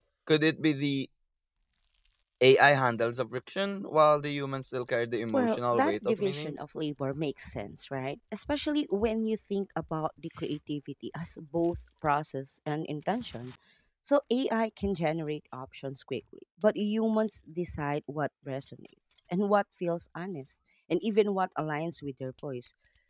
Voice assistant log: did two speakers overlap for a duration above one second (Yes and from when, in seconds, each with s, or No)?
Yes, from 5.3 s